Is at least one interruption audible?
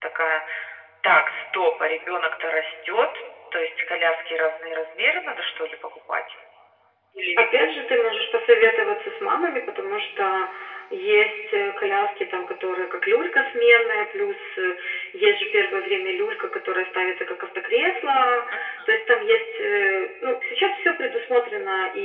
No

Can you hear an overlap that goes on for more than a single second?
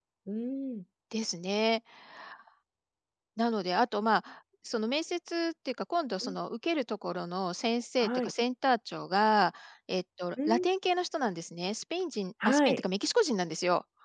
No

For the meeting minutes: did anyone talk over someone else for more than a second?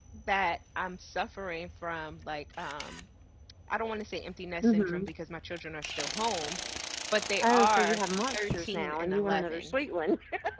Yes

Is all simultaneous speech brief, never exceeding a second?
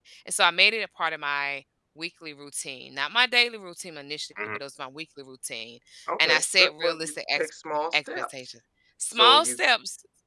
No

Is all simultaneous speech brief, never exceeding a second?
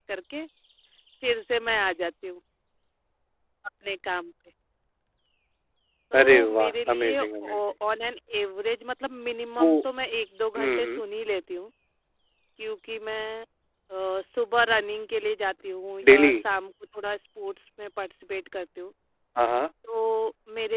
No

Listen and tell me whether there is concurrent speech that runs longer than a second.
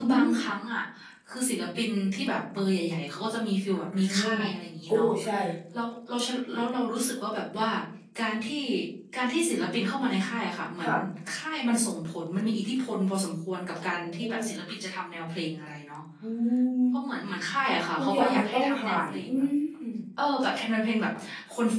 Yes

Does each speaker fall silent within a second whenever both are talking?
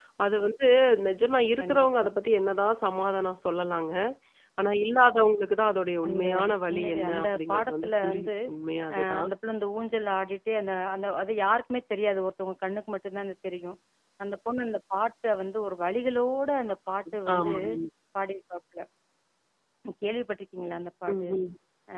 No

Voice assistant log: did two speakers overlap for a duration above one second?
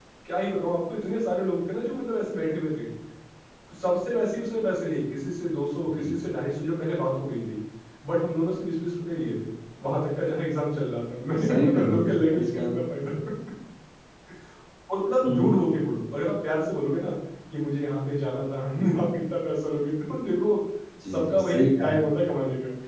Yes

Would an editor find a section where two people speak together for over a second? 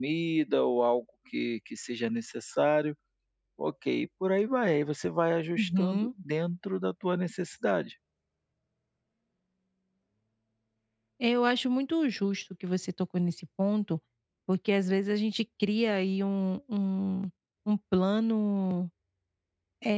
No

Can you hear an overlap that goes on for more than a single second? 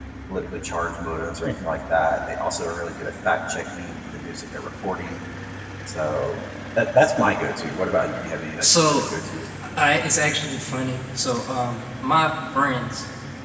No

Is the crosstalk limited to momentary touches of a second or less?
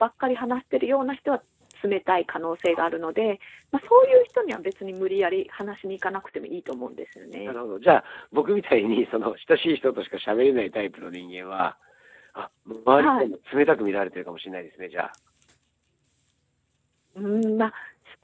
Yes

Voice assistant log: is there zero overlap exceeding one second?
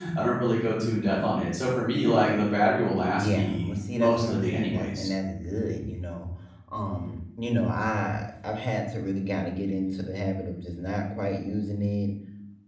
No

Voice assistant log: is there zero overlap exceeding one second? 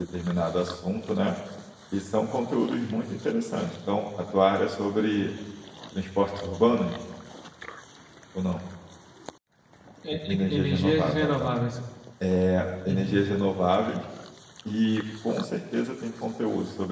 No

